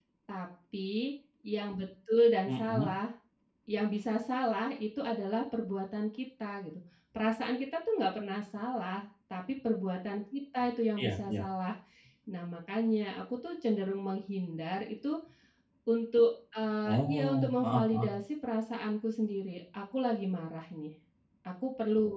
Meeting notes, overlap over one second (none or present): present